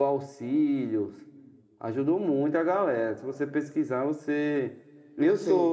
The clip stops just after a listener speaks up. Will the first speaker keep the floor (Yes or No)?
Yes